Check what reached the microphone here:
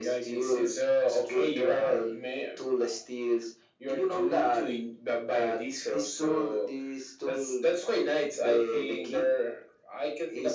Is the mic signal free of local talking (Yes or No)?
Yes